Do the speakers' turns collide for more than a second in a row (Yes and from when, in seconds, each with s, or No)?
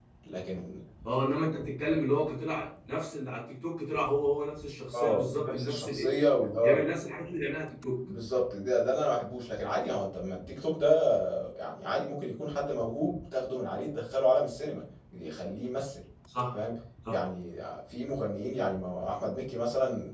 Yes, from 4.9 s